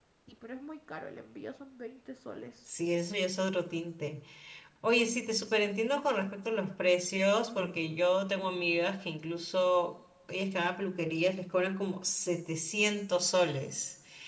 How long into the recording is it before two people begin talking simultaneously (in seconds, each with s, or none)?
none